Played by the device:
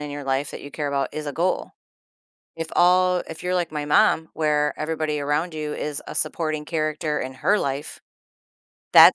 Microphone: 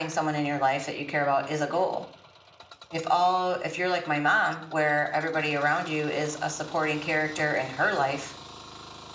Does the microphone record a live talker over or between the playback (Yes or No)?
No